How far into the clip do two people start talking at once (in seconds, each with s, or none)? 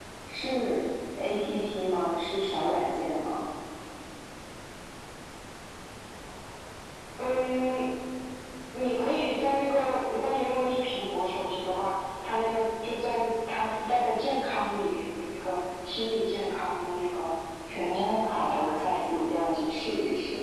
17.7 s